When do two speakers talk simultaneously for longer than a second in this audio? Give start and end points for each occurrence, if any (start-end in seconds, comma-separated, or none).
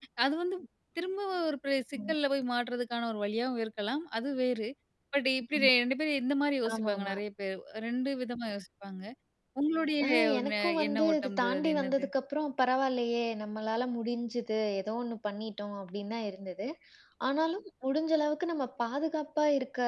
10.1-12.0